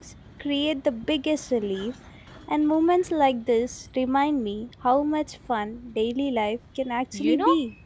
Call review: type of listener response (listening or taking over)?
taking over